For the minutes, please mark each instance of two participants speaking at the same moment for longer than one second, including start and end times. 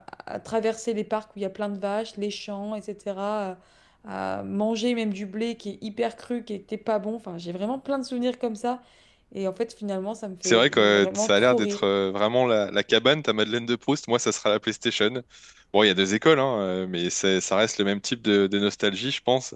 10.4-11.8

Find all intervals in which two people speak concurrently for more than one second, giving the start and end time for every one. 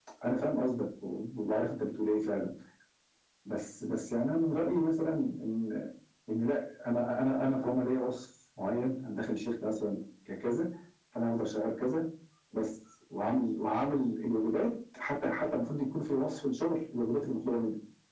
none

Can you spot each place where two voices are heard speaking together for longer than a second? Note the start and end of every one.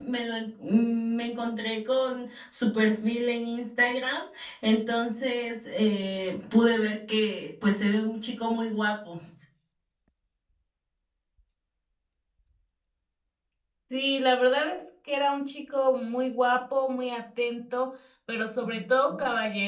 none

